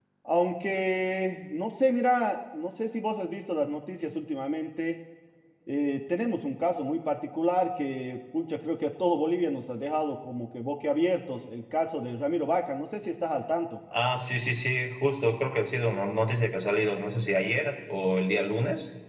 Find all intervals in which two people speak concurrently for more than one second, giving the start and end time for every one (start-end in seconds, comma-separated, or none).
none